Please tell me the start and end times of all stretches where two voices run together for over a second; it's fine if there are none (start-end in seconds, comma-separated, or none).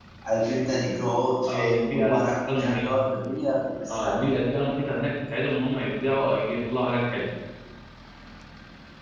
1.5-2.9